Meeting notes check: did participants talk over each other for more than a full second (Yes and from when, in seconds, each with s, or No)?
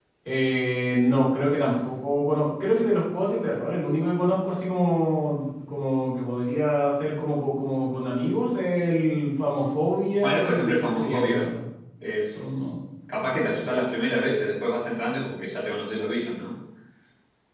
Yes, from 10.2 s